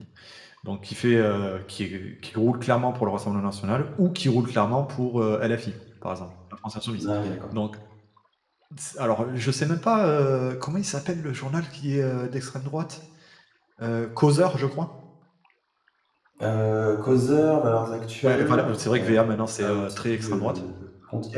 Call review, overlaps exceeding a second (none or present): present